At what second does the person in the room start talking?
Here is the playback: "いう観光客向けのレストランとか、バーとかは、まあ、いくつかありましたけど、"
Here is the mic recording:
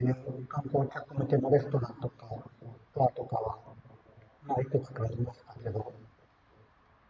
none

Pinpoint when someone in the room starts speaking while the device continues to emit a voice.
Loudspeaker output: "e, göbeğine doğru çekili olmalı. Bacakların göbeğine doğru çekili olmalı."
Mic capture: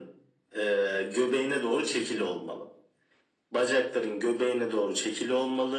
none

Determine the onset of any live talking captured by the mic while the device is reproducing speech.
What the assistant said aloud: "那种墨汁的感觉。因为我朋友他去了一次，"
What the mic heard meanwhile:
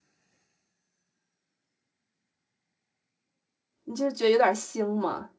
4 s

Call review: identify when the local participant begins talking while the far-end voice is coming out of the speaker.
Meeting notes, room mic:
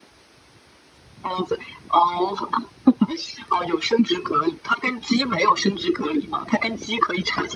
none

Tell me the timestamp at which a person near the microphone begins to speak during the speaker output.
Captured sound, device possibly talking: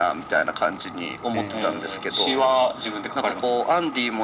1 s

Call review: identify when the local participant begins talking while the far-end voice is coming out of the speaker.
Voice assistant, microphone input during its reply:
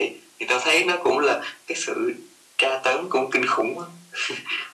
none

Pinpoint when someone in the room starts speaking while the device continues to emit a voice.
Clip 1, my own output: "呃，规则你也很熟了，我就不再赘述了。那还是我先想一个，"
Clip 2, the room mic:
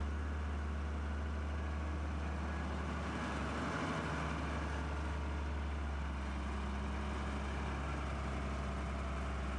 none

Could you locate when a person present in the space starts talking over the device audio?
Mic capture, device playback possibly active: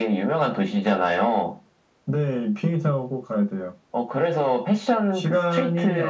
none

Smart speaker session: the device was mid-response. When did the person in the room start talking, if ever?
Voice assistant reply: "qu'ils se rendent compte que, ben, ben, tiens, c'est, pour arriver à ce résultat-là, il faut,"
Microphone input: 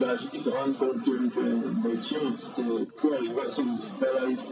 none

